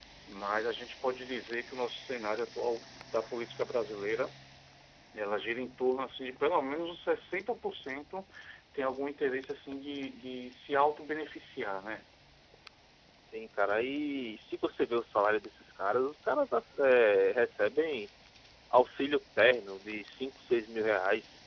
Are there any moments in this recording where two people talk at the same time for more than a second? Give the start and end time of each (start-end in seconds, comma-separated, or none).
none